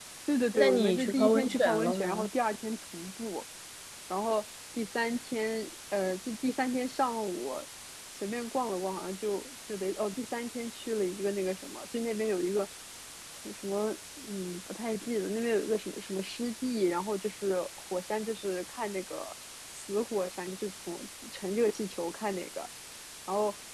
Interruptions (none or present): present